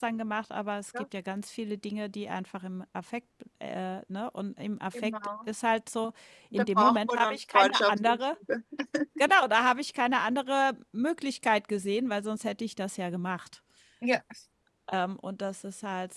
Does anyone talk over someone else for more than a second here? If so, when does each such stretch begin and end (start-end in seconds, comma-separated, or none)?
6.5-8.2